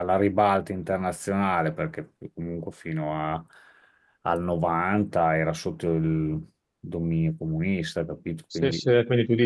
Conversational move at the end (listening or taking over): taking over